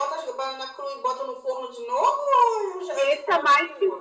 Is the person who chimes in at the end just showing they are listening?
No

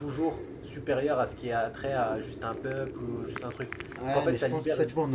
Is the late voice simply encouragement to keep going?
No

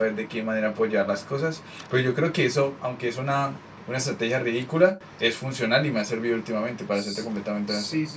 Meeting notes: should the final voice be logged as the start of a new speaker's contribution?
Yes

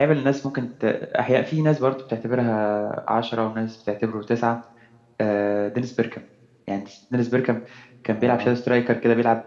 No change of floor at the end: Yes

